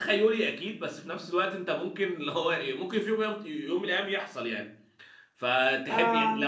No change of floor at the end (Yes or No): Yes